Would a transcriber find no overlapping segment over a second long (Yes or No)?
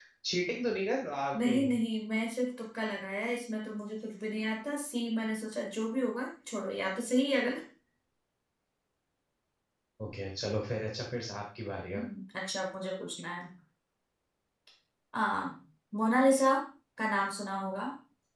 Yes